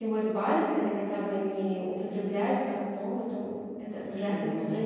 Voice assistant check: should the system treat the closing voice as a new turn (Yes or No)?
Yes